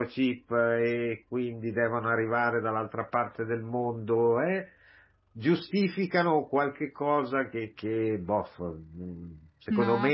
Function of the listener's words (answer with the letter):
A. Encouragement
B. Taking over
A